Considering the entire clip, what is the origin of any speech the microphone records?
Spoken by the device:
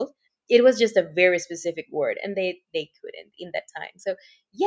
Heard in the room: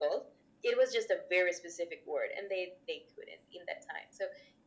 echo only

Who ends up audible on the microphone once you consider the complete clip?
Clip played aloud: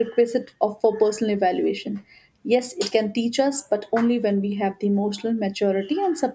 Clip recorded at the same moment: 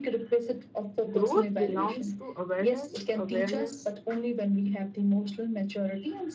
both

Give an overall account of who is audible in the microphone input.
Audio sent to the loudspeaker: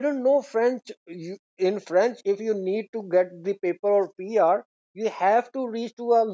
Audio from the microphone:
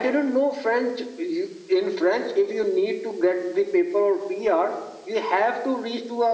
echo only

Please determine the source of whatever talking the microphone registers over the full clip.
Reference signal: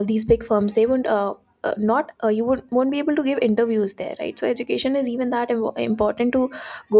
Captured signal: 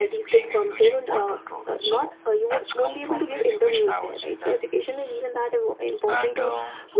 both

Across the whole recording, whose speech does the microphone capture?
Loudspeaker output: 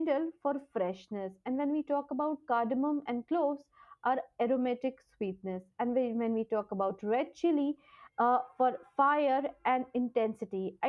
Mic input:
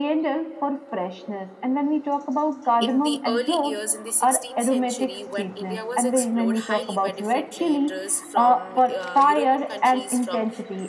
both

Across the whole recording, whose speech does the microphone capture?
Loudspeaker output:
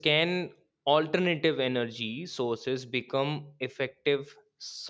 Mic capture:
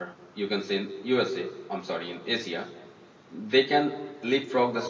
user only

